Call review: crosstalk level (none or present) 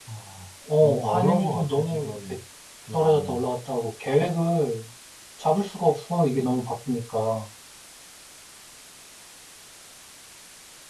present